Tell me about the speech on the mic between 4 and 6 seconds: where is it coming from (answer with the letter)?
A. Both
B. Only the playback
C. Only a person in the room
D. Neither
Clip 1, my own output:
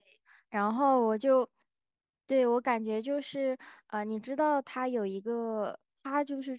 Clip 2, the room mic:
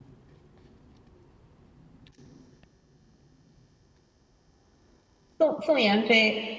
C